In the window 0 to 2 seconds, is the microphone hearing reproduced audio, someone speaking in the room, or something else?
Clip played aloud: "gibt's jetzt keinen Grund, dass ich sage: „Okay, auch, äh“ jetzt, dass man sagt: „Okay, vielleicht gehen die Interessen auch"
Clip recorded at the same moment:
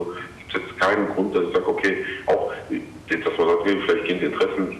echo only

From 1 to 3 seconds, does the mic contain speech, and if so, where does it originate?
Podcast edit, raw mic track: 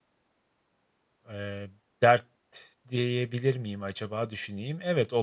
user only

